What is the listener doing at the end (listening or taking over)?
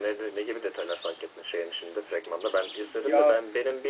listening